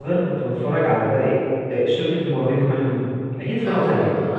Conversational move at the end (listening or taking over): taking over